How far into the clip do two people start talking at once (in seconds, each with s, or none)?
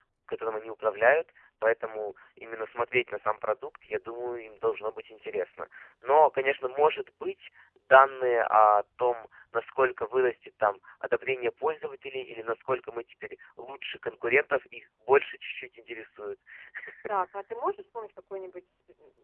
none